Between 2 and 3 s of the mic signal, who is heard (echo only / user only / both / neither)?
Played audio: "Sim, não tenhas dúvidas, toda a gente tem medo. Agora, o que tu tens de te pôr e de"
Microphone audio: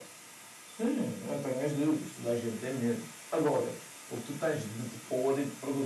echo only